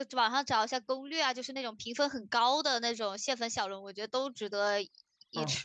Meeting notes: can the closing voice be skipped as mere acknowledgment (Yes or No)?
No